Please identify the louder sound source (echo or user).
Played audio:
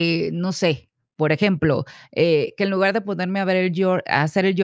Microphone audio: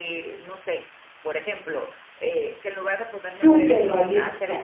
user